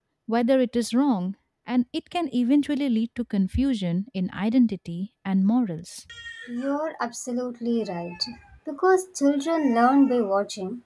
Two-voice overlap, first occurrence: none

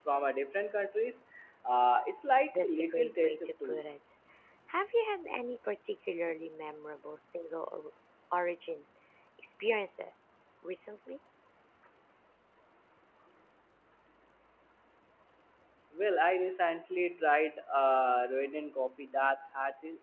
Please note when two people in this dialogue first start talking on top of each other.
2.5 s

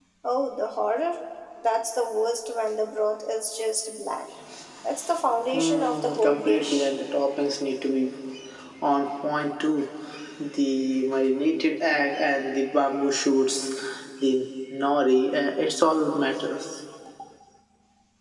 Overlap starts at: 5.5 s

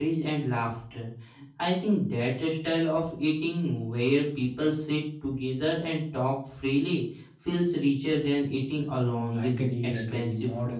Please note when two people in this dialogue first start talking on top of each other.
9.0 s

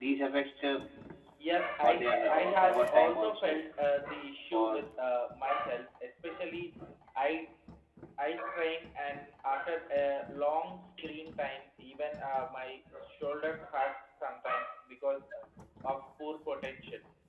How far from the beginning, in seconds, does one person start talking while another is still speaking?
1.8 s

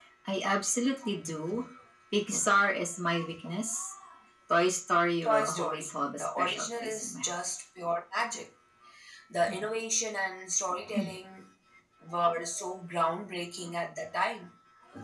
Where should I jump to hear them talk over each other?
5.2 s

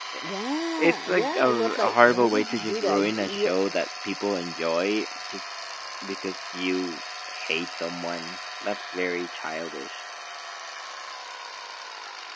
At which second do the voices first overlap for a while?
0.8 s

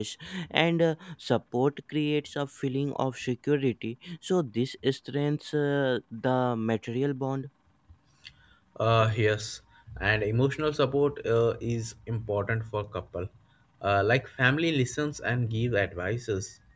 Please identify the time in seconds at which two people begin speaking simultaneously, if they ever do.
none

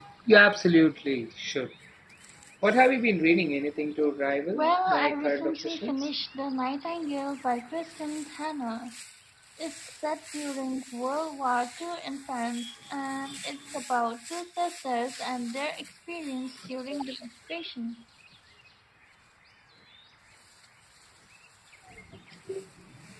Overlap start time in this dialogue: 4.5 s

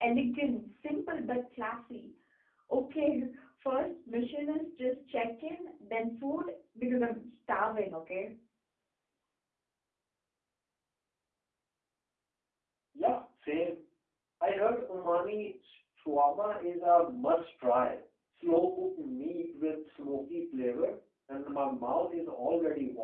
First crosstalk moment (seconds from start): none

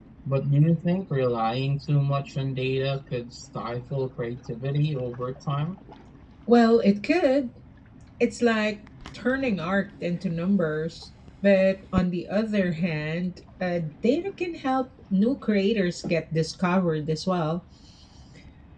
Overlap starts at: none

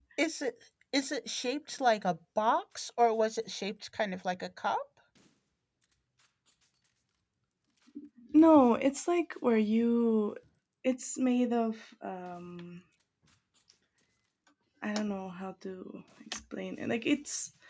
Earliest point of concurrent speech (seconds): none

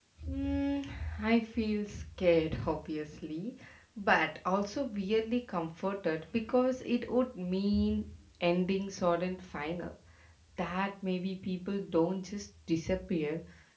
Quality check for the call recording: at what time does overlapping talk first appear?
none

